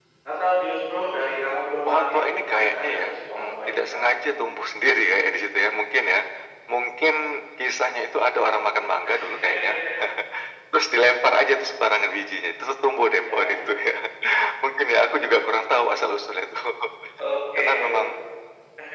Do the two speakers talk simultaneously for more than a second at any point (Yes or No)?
Yes